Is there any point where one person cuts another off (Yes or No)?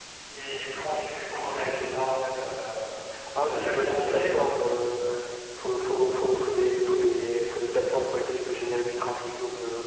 Yes